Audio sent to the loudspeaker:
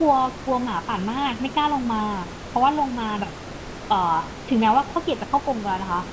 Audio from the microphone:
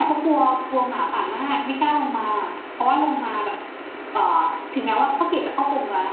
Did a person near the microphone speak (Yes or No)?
No